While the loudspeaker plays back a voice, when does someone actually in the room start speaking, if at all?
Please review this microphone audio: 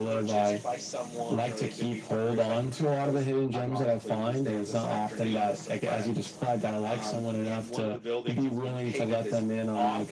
none

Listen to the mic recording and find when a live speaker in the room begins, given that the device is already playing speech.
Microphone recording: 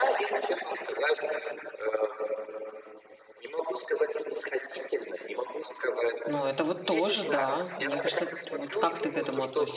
6 s

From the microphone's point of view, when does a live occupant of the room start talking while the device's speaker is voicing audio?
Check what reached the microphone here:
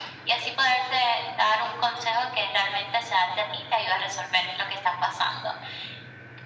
none

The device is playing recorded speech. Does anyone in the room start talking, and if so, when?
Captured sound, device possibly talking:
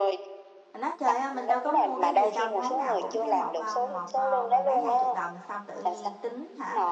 1 s

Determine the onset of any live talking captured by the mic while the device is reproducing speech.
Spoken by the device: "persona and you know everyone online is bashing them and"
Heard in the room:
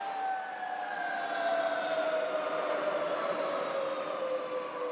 none

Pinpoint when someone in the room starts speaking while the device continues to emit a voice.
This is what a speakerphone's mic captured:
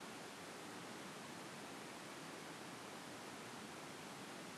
none

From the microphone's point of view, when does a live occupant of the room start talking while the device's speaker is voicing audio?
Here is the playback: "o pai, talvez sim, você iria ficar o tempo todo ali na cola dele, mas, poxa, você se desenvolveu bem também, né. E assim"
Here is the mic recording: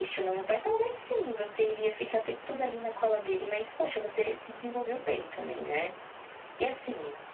none

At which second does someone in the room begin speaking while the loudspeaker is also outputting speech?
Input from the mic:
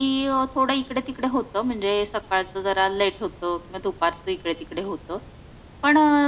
none

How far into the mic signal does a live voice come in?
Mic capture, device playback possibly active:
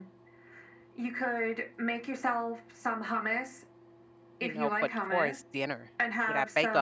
4 s

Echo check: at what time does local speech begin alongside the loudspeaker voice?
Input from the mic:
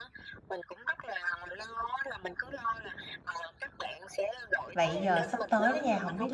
5 s

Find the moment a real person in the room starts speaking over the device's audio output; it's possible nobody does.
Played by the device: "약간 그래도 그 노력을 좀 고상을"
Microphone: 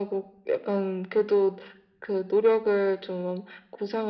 none

